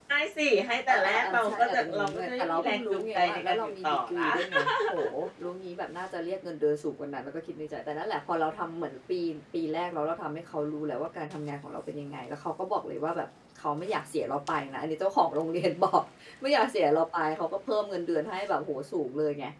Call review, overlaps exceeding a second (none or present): present